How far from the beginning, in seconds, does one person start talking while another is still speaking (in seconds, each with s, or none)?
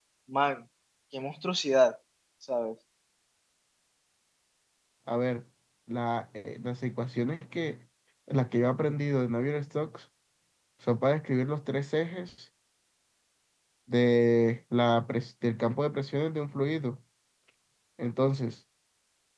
none